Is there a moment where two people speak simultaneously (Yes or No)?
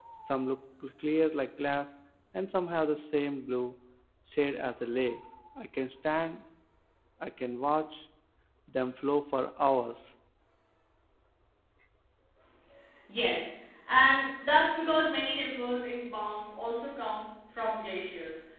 No